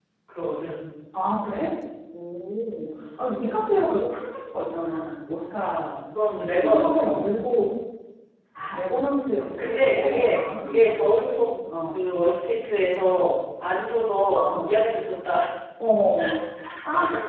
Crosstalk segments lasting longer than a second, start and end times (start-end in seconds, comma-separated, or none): 9.6-11.0